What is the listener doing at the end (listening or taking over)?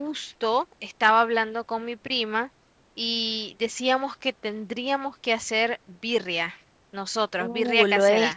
taking over